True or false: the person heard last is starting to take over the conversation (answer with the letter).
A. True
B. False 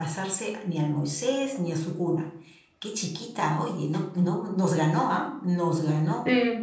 A